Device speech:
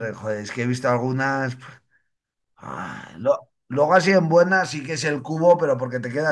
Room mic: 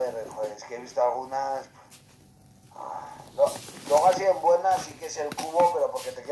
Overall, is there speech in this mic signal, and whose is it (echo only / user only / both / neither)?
echo only